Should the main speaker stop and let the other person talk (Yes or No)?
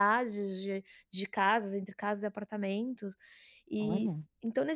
No